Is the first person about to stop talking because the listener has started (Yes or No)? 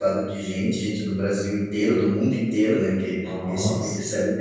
No